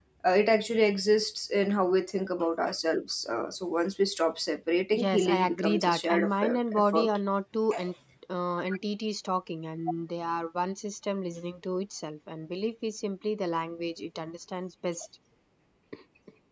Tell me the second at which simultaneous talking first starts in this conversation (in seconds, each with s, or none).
4.9 s